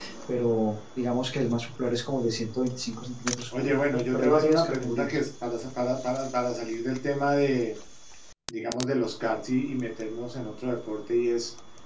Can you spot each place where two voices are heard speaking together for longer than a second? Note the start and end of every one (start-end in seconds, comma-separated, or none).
3.6-5.2